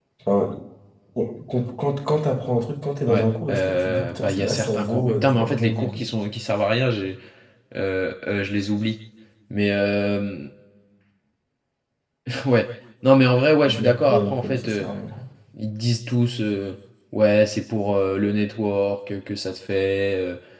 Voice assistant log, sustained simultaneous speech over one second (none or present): present